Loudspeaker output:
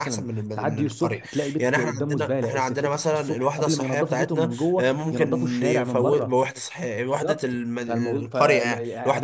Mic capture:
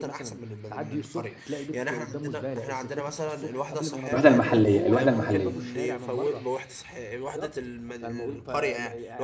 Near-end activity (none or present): present